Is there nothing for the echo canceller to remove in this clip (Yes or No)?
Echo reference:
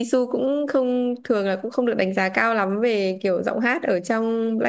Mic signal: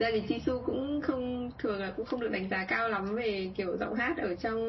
No